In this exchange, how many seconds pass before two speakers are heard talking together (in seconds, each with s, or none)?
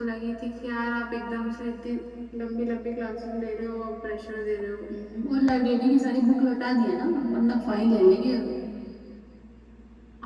none